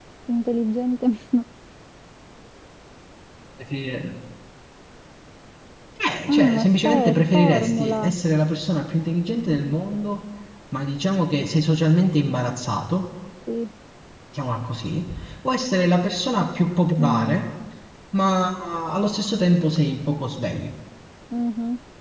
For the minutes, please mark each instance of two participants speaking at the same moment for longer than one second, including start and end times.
6.3-8.2

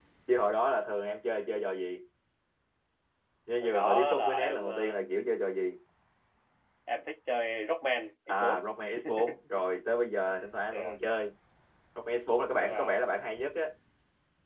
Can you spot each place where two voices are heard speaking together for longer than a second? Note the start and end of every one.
3.6-5.0

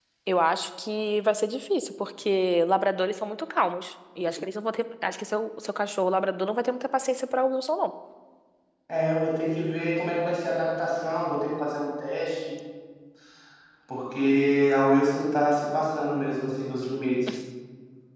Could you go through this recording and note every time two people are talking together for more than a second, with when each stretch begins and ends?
none

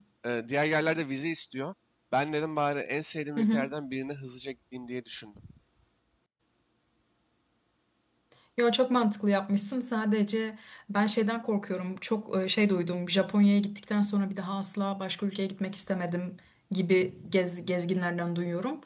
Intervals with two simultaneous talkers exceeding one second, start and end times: none

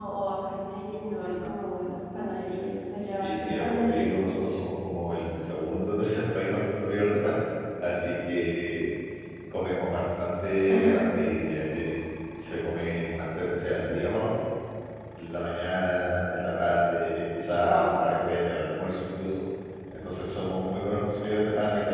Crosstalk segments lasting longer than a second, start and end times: 3.0-4.3

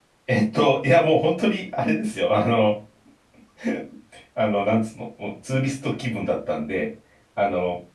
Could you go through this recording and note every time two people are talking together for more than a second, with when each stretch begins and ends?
none

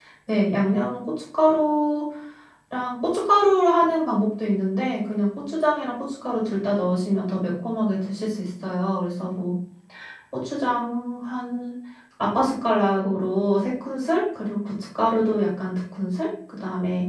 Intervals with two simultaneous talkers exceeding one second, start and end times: none

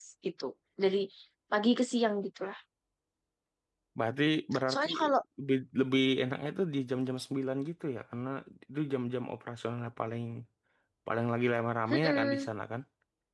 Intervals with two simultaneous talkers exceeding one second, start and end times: none

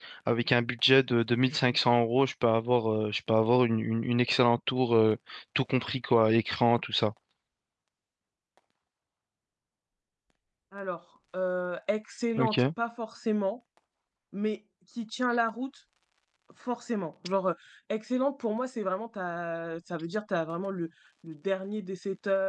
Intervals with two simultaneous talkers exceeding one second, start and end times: none

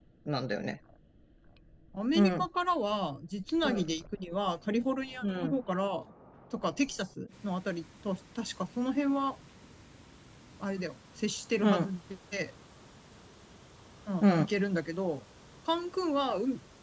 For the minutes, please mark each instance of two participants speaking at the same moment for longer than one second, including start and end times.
none

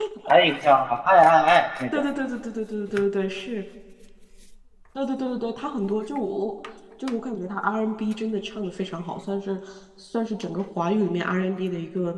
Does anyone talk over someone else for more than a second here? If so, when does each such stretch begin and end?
none

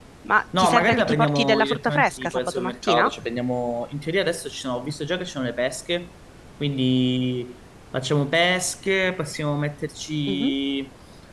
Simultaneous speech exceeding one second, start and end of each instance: 0.6-3.1

